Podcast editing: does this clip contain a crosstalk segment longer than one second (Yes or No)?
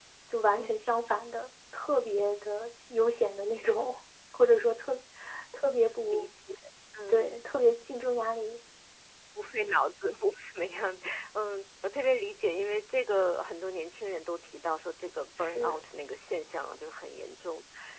No